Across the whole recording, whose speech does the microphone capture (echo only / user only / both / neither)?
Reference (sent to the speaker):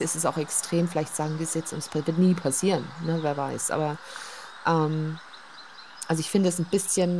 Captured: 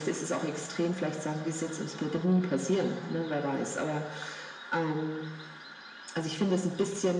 echo only